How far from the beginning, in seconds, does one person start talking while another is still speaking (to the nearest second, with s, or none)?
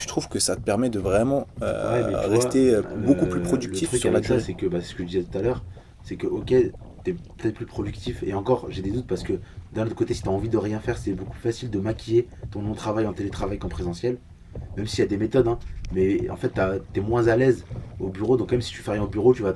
2 s